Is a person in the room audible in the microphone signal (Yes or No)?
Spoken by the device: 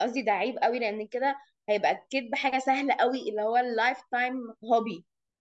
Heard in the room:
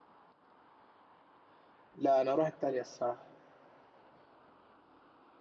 Yes